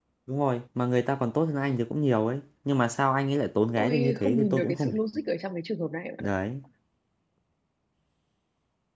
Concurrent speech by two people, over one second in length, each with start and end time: 3.8-5.0

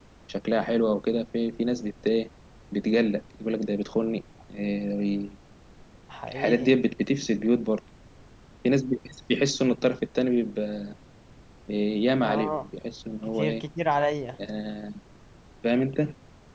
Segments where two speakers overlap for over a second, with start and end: none

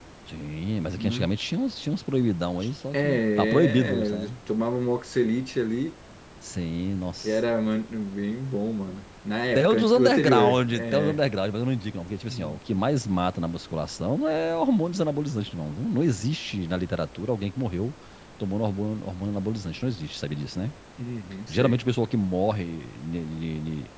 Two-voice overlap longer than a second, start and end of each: 2.9-4.3, 9.6-11.2

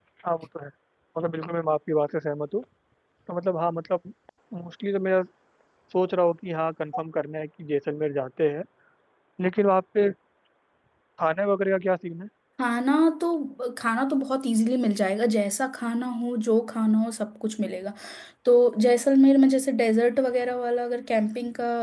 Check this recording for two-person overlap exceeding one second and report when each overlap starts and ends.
none

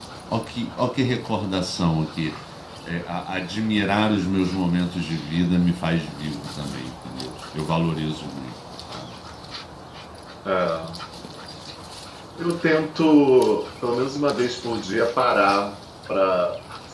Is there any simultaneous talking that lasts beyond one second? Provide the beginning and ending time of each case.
none

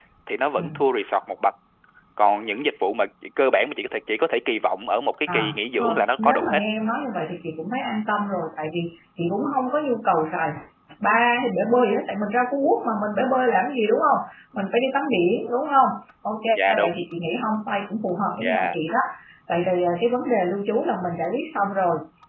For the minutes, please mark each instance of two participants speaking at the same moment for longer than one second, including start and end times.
5.3-6.6

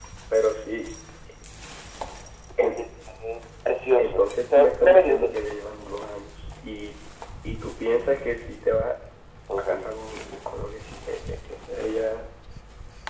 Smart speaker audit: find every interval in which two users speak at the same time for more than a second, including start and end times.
4.0-5.3

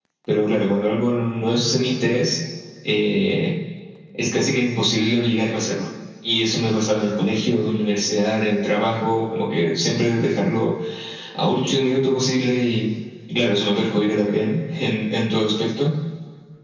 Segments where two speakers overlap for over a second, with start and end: none

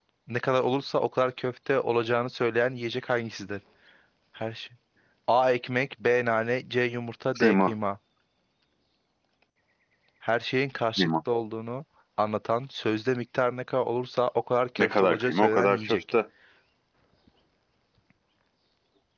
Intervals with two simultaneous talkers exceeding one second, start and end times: 14.8-16.0

